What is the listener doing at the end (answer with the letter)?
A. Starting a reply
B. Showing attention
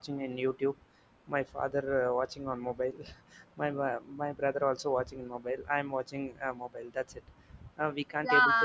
A